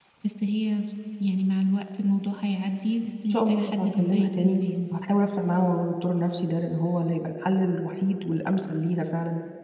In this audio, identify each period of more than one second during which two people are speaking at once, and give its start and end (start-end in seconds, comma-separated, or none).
3.3-4.6